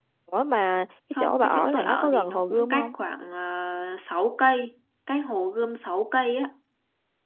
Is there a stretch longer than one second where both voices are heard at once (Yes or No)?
Yes